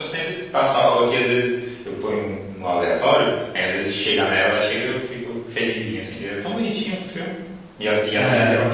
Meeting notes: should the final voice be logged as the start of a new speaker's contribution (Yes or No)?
Yes